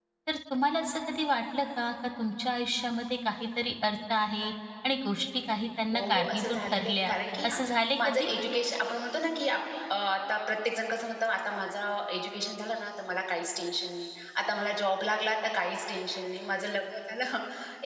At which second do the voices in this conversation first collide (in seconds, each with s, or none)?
5.9 s